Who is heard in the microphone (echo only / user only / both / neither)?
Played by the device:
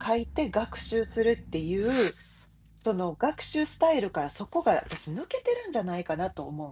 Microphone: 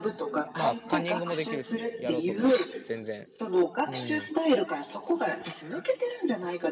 both